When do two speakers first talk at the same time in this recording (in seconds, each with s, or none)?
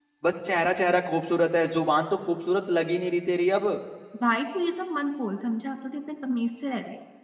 none